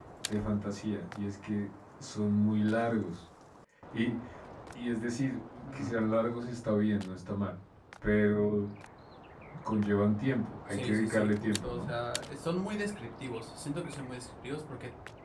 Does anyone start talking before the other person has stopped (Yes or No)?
Yes